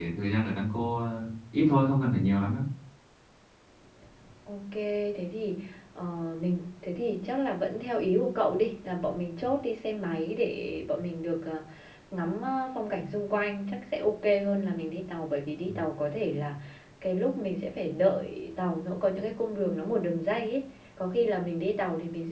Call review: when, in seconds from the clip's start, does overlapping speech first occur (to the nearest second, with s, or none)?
none